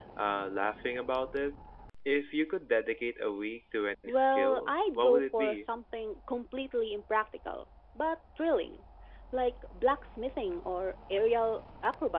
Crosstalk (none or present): present